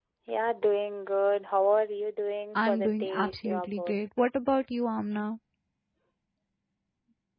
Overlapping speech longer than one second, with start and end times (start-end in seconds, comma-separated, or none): 2.5-3.9